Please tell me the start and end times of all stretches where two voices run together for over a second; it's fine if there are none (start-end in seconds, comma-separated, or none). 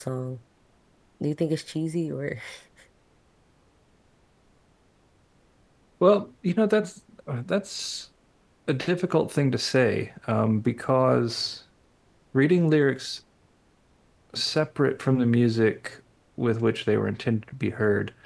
none